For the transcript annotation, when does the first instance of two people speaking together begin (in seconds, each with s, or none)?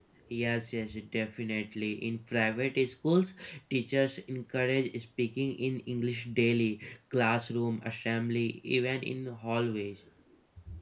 none